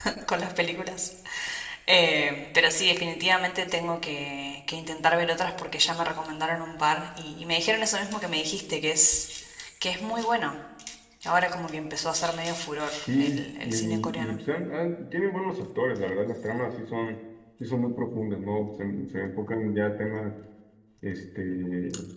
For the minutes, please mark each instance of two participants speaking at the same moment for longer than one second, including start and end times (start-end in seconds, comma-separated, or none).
13.1-14.3